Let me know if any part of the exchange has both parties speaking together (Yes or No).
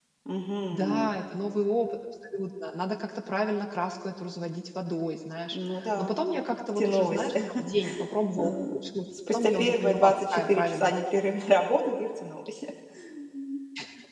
Yes